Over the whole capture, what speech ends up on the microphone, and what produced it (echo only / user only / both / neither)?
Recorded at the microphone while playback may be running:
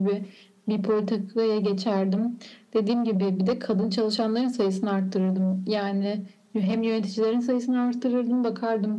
echo only